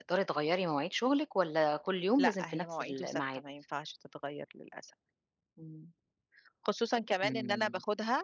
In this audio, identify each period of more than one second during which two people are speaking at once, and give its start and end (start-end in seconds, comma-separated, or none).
2.2-3.4